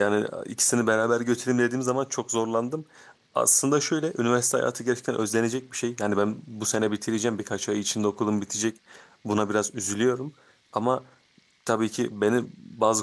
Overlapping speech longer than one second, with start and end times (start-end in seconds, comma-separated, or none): none